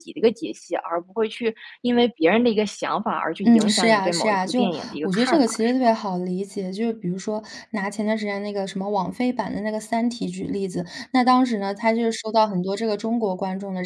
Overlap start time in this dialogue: 3.4 s

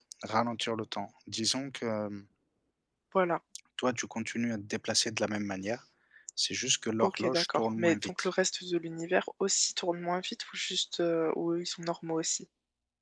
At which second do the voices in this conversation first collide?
7.0 s

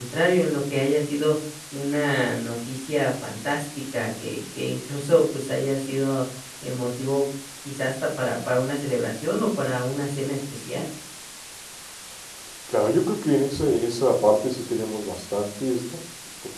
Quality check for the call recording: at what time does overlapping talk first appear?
none

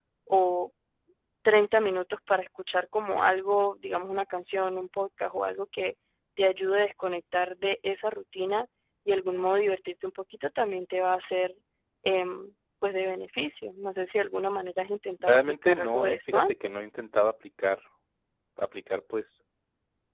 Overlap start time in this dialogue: 15.2 s

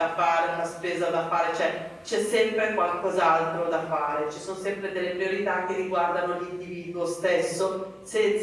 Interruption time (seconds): none

